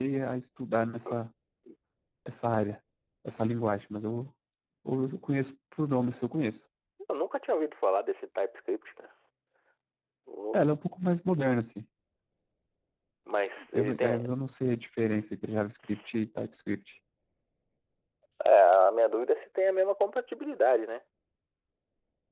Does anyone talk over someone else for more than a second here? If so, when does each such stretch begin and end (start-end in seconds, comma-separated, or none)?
none